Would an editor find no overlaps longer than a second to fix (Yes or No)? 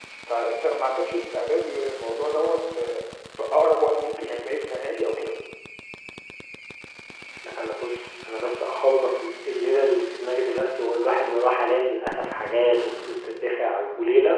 Yes